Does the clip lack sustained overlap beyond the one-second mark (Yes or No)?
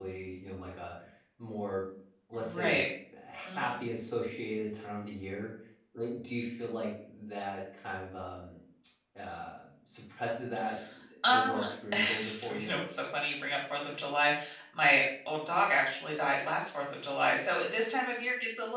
No